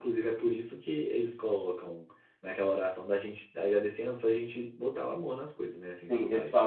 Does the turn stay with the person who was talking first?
No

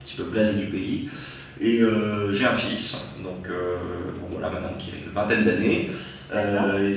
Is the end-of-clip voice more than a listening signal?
No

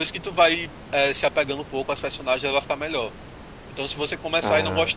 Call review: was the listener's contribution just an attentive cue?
Yes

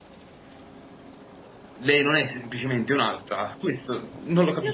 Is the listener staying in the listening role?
No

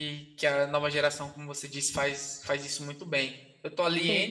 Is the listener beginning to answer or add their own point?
No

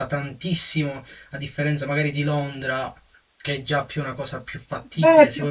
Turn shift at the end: Yes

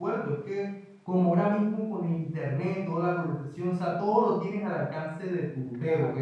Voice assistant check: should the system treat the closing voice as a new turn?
No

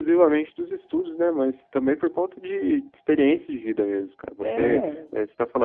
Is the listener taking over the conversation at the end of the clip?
No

